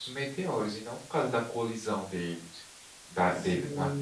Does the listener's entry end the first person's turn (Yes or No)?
Yes